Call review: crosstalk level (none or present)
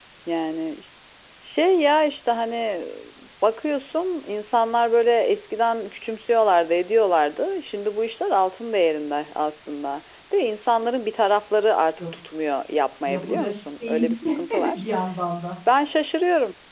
present